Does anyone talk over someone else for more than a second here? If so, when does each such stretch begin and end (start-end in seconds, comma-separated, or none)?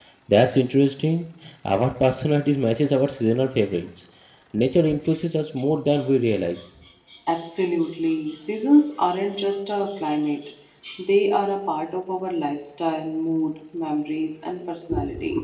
none